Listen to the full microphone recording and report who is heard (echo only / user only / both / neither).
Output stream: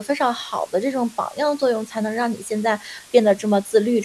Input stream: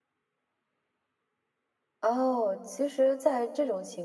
user only